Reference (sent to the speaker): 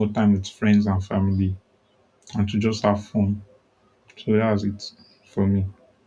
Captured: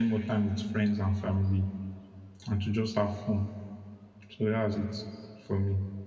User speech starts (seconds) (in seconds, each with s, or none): none